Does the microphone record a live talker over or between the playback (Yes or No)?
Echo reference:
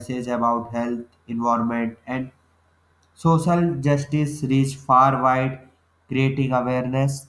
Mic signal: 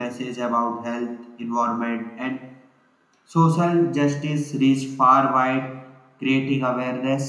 No